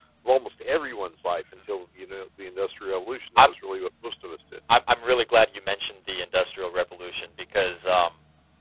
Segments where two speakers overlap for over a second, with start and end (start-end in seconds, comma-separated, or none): none